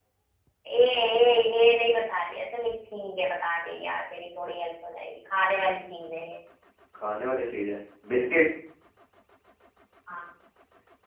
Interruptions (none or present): none